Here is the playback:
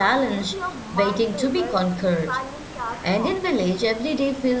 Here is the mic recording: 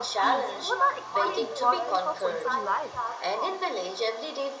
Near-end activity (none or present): present